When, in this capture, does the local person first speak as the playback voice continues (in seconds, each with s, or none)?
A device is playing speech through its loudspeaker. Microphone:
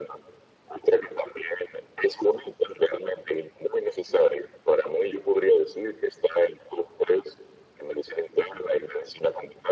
none